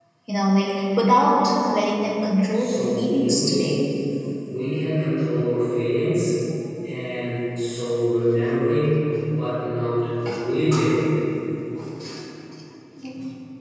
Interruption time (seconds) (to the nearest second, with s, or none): 3 s